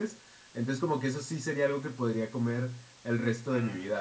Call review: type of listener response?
taking over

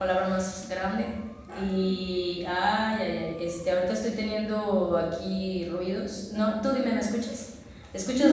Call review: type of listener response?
taking over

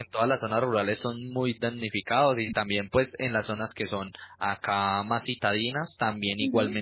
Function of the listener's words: listening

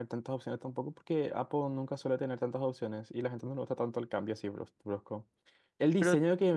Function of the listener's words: listening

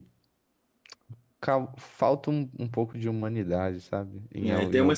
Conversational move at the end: taking over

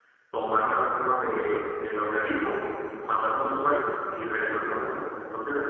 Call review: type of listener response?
listening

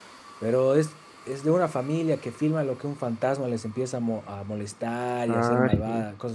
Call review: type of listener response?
listening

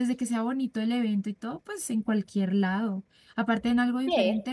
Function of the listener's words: listening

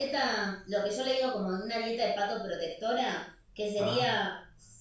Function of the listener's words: listening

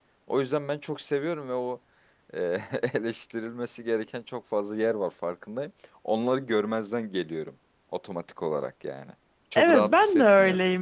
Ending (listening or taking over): taking over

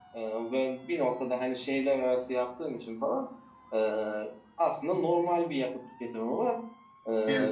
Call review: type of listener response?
listening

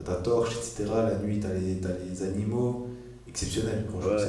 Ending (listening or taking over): taking over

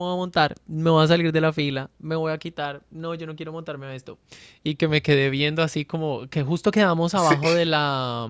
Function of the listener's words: listening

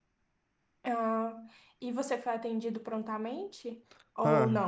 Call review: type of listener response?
taking over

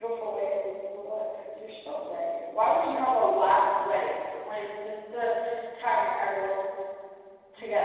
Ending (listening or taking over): taking over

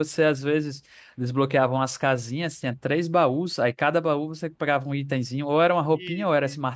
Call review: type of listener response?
listening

